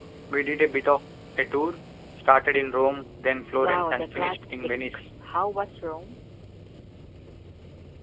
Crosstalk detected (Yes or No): Yes